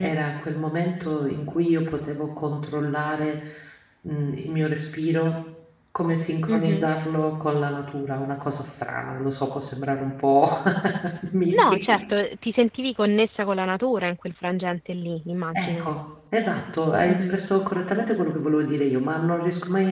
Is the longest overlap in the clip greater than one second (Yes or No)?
No